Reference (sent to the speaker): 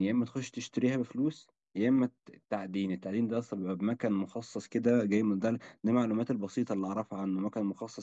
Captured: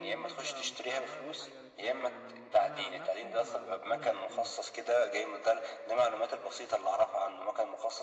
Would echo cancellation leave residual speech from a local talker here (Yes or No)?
Yes